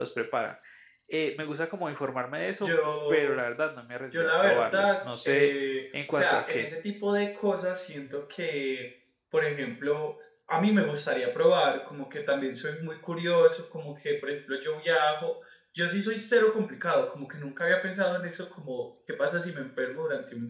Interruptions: present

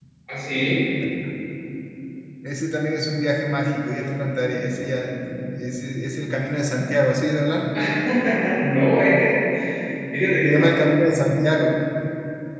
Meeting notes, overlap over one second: none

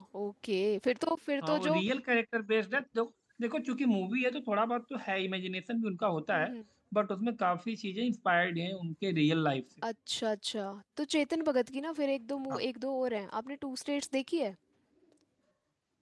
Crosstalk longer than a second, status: none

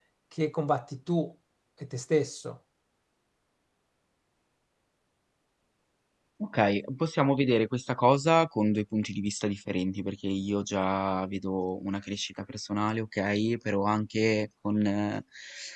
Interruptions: none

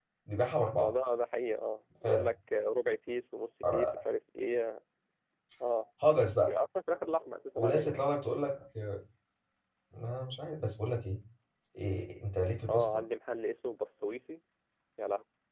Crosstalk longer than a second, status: none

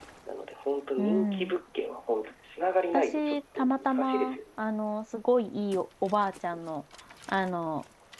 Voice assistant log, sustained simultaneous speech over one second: present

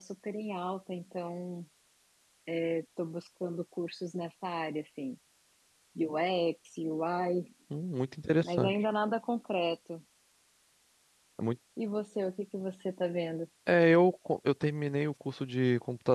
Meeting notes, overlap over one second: none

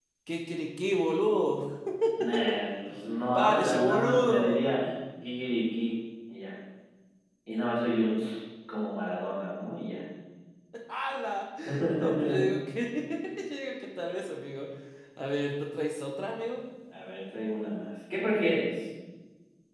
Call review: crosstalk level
present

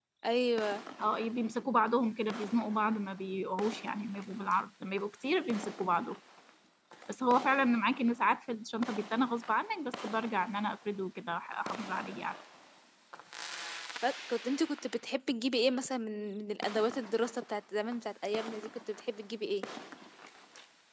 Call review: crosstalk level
none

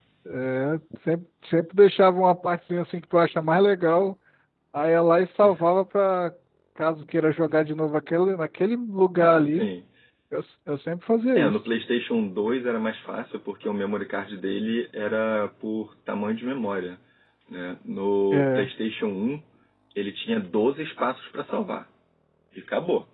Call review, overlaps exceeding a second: none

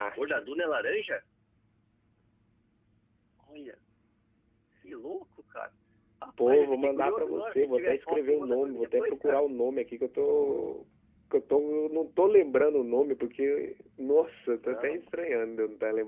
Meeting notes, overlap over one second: present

